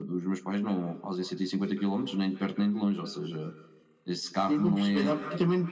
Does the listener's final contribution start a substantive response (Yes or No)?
Yes